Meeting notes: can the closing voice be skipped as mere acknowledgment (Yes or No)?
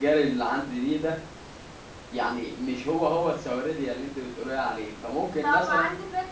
No